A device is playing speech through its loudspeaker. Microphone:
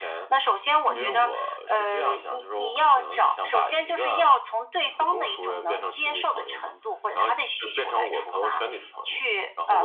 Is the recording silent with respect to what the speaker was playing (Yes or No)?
No